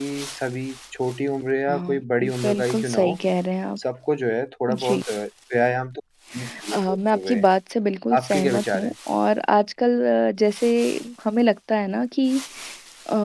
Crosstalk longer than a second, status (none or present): present